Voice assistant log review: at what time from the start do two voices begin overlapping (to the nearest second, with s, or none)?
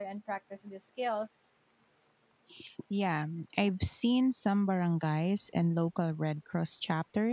none